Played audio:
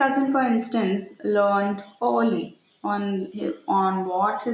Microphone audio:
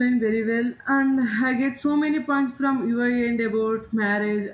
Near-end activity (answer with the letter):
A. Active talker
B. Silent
A